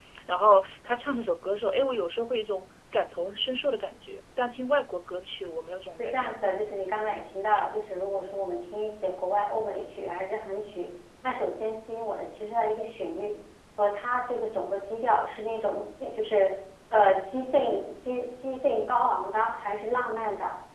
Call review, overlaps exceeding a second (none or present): none